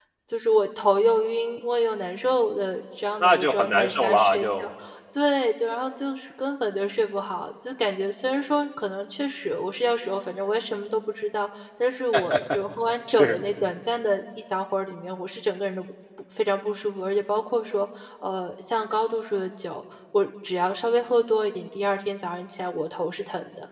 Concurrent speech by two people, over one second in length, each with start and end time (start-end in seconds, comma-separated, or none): 3.2-4.7